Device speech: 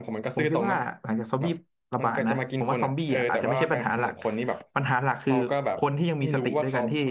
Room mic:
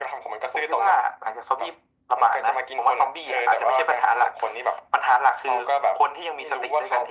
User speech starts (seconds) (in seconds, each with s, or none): none